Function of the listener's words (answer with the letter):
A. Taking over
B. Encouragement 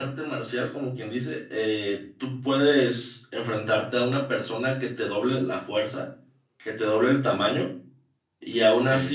B